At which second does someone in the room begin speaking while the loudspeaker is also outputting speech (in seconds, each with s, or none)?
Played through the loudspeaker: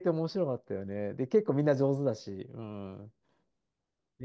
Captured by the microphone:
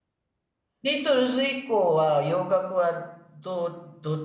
0.8 s